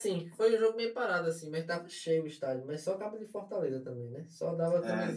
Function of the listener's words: listening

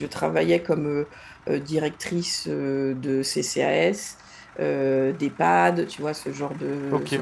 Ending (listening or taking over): listening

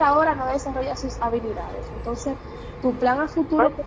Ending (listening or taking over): listening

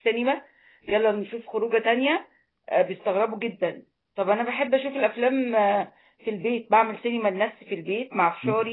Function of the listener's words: listening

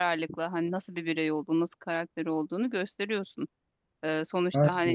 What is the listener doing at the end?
listening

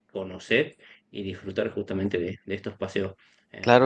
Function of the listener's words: listening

